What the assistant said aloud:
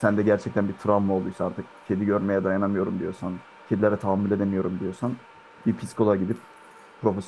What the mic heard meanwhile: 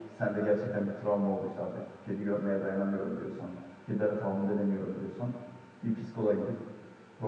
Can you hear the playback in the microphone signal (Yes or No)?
Yes